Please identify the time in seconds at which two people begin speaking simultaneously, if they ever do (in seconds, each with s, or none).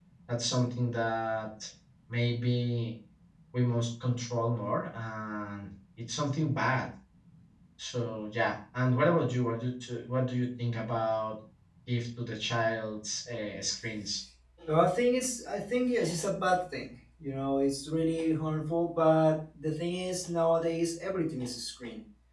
none